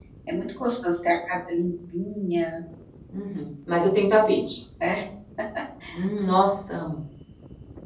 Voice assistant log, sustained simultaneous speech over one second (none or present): none